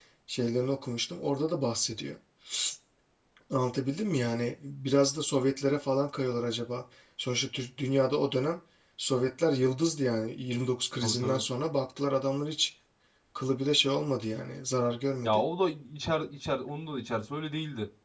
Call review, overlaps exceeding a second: none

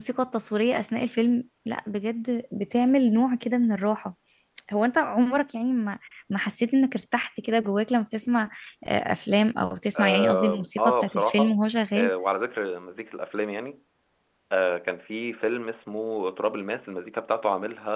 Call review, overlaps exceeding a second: present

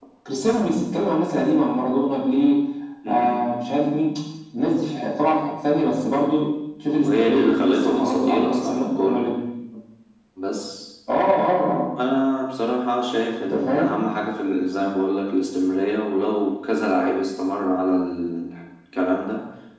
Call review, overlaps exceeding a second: present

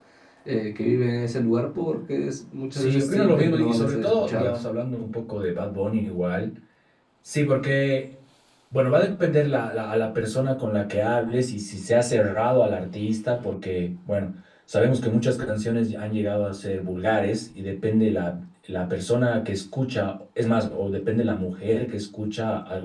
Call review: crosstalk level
present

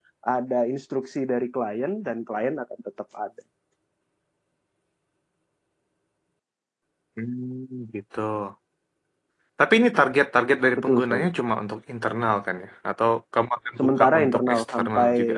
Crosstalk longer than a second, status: present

